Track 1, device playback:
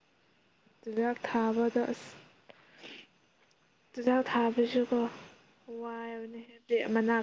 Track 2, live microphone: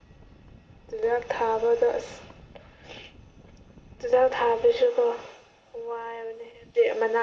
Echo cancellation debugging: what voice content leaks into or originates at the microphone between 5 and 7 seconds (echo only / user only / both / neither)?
echo only